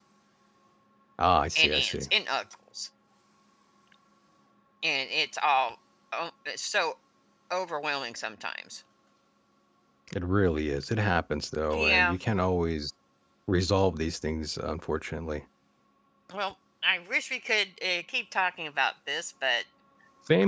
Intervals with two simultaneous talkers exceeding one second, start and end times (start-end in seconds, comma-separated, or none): none